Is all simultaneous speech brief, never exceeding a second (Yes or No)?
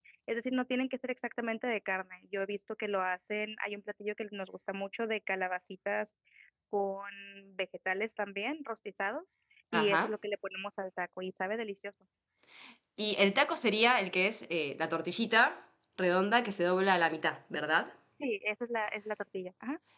Yes